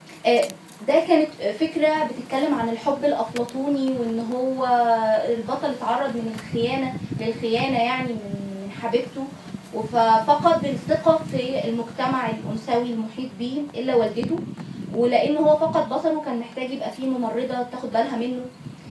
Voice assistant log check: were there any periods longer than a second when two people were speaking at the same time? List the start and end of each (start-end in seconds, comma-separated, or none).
none